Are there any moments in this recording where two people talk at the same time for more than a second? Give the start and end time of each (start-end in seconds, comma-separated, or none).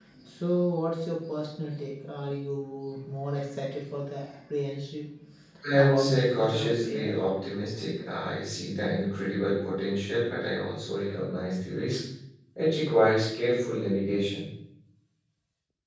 5.7-7.2